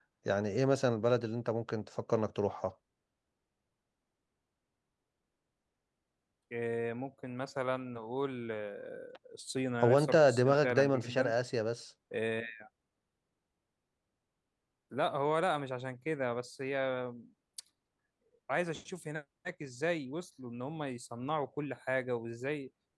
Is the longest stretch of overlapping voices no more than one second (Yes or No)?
No